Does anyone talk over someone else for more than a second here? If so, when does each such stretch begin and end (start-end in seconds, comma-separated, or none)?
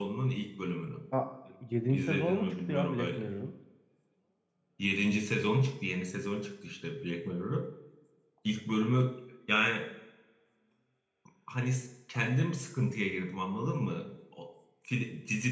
1.9-3.2